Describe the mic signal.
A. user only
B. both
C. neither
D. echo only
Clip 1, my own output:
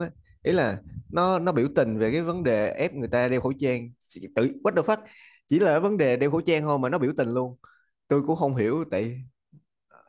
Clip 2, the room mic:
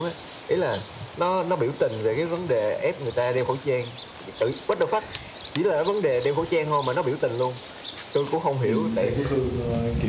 B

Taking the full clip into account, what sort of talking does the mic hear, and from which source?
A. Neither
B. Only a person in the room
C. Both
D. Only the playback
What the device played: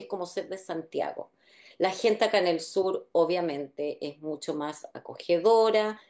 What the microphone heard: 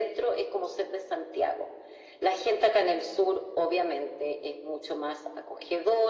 D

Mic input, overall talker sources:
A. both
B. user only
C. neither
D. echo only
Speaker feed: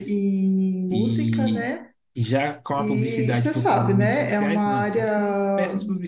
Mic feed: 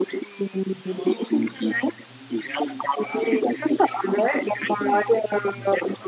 A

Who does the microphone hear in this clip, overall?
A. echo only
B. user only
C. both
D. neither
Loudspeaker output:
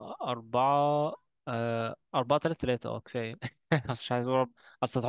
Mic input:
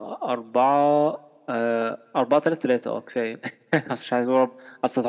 A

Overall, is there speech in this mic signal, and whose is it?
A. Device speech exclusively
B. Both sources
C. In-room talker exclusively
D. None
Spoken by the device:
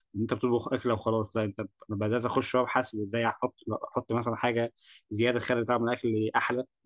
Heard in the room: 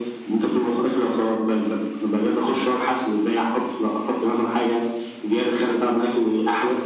A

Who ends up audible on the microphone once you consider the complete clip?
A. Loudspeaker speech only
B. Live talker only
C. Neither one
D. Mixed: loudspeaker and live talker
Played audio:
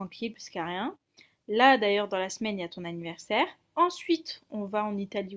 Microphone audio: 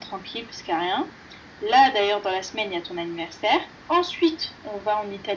A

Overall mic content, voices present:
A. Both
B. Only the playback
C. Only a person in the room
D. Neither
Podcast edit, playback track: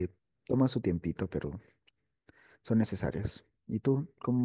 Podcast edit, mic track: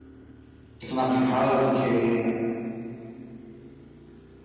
C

